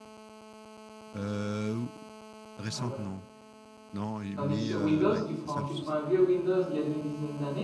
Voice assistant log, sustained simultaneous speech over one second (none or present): present